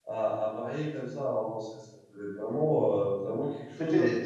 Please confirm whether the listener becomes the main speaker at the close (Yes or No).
Yes